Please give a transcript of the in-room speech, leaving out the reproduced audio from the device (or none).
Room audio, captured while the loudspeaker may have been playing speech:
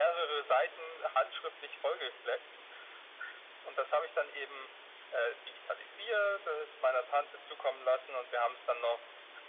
none